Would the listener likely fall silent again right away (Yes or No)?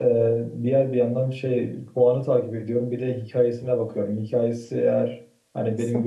Yes